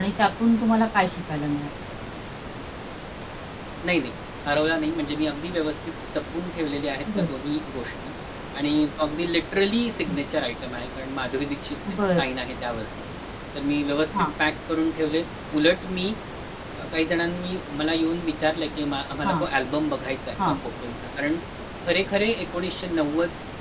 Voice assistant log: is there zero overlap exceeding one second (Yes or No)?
Yes